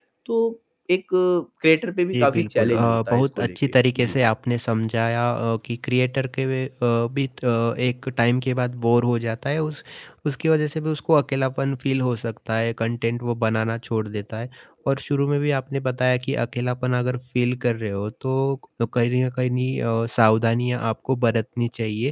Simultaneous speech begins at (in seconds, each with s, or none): 2.1 s